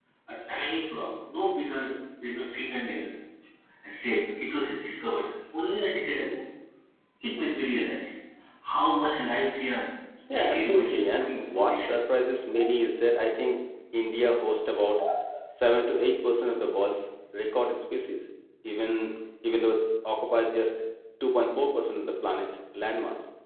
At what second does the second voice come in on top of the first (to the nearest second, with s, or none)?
10 s